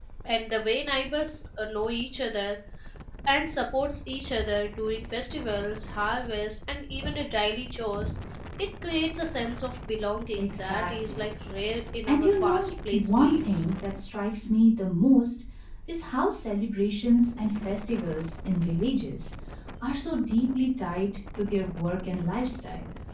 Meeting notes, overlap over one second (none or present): present